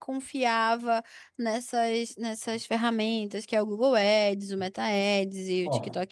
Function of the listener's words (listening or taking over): listening